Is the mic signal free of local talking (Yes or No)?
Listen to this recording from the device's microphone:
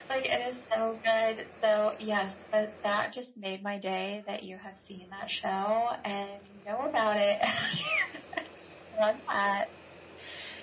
Yes